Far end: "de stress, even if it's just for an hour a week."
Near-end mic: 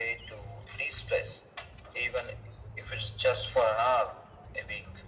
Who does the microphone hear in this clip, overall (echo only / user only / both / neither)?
echo only